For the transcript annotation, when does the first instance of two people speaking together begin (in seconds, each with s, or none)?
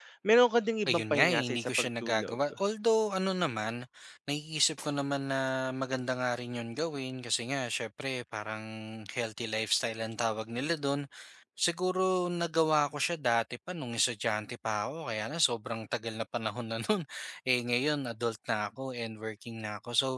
0.9 s